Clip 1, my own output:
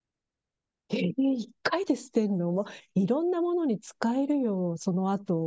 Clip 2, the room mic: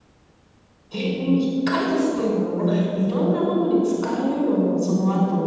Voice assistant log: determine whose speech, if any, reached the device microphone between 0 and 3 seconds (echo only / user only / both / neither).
echo only